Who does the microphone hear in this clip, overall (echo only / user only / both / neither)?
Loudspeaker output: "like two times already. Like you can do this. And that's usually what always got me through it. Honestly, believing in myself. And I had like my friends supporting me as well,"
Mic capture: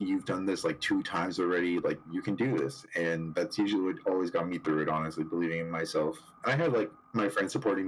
echo only